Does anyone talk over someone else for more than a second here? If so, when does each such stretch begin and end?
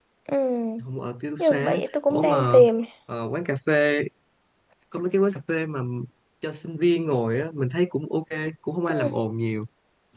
1.4-2.6

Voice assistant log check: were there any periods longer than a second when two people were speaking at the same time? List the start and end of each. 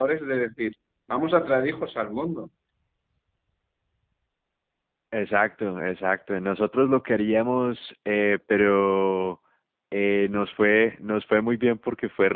none

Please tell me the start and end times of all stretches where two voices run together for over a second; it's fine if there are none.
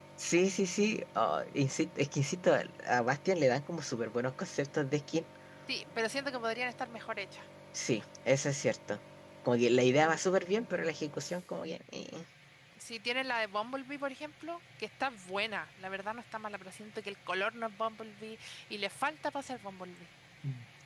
none

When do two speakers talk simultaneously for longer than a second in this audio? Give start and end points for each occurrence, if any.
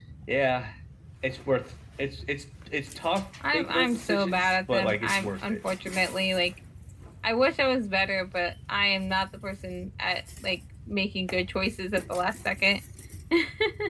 3.5-5.6

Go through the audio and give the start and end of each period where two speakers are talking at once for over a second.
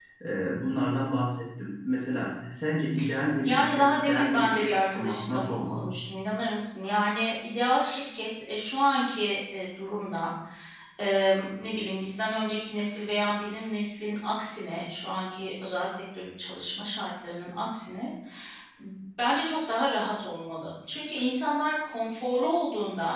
3.4-5.9

